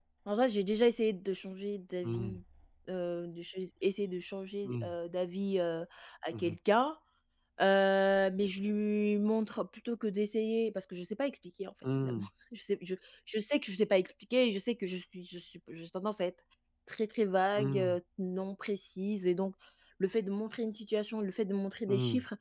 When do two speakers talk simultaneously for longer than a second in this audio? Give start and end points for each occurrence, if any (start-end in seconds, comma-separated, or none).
none